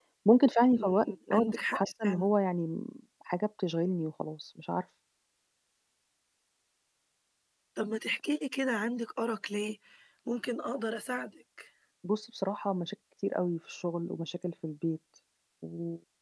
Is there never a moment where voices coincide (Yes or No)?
No